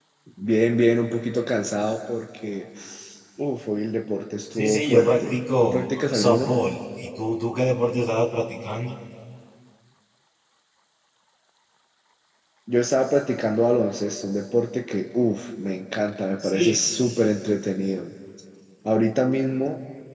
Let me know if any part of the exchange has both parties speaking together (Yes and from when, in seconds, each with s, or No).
Yes, from 4.6 s